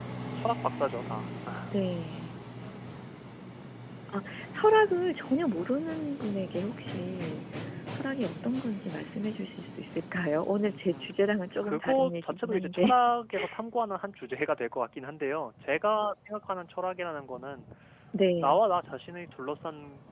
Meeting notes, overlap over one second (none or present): present